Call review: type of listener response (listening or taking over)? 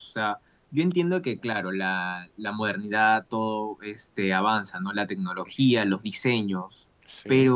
listening